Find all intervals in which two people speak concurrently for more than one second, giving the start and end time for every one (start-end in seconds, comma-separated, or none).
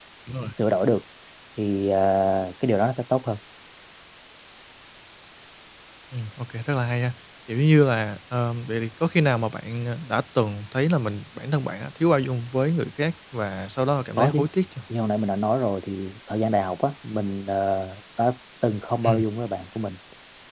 none